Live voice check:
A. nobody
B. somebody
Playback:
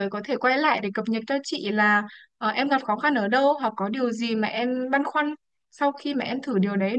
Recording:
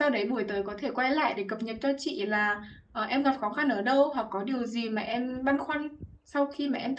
A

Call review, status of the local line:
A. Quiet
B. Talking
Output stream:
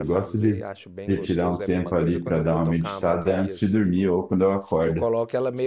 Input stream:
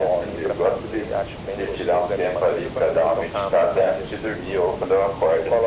A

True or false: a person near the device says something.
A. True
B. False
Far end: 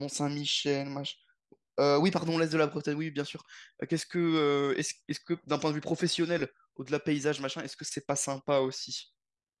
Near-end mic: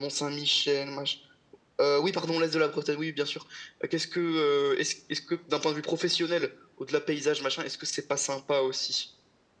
B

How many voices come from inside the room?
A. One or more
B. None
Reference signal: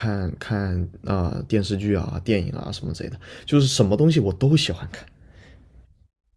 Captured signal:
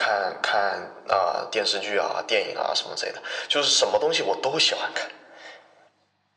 B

